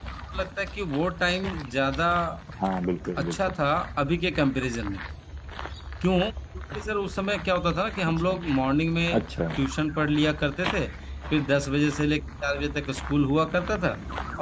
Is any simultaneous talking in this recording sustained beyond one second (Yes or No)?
No